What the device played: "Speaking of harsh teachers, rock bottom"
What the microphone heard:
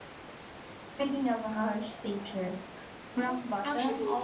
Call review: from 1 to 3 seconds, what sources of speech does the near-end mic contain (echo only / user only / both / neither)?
echo only